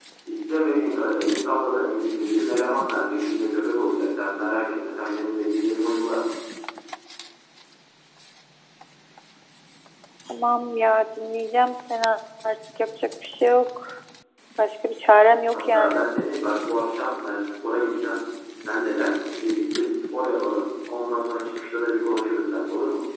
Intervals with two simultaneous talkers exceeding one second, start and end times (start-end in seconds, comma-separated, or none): none